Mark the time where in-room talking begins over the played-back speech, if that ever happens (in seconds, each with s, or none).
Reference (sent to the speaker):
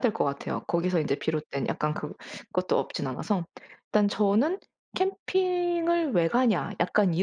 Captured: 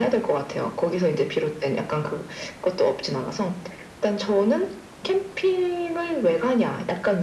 none